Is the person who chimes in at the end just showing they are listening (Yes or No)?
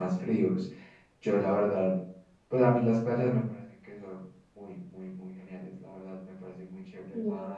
Yes